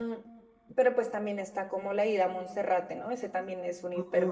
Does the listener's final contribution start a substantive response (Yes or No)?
Yes